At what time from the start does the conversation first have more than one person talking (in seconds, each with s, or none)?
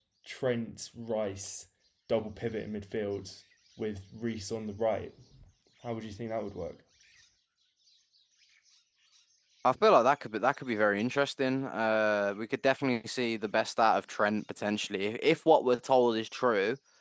none